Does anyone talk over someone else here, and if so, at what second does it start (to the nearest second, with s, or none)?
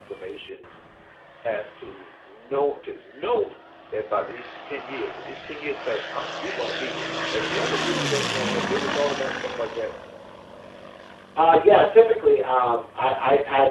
none